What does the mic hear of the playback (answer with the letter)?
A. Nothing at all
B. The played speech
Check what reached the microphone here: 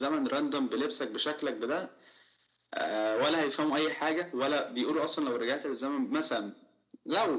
B